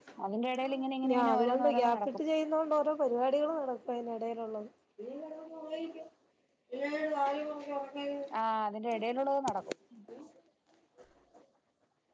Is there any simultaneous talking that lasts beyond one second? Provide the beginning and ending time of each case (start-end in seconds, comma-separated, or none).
0.6-2.2